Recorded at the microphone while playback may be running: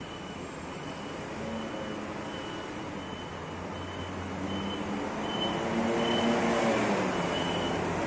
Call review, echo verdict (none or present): none